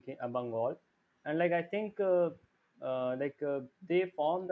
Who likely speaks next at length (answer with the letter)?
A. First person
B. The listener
A